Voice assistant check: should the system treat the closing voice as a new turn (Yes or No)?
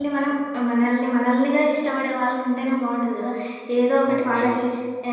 No